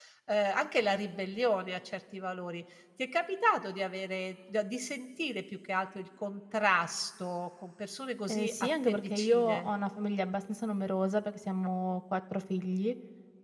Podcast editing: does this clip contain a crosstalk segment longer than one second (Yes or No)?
Yes